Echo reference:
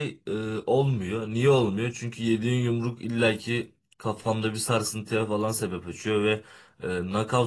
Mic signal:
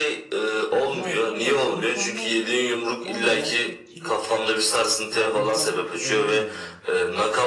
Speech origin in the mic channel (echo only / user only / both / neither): both